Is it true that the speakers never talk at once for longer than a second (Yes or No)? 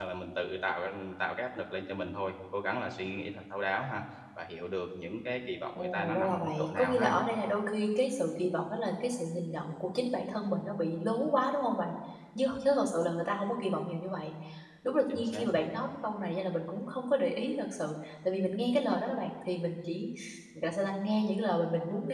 No